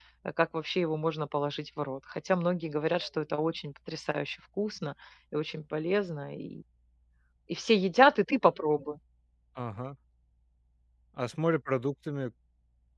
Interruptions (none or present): none